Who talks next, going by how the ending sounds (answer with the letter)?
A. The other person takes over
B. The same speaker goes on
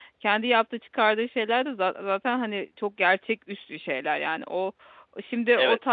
A